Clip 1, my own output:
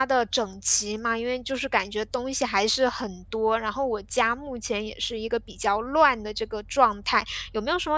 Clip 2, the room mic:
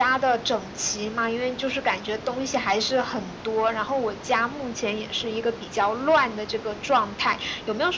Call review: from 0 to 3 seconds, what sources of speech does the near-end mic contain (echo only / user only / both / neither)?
echo only